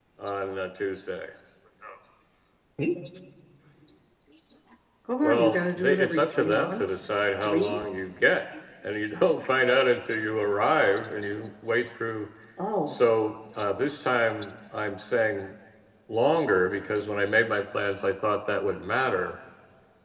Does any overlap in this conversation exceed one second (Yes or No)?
Yes